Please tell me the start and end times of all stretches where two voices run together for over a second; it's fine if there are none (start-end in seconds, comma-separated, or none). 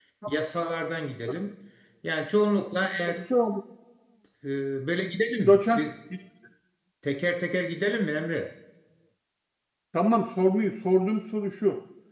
none